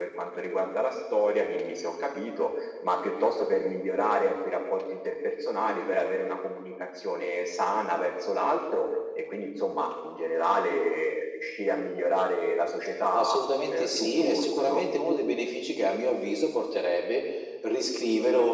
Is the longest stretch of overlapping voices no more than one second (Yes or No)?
No